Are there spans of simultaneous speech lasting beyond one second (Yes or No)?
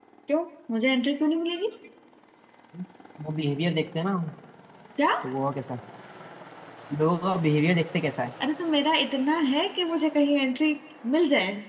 No